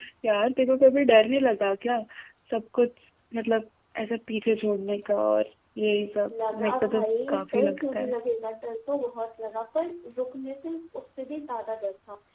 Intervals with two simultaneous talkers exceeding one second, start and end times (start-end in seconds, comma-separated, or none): 6.3-8.1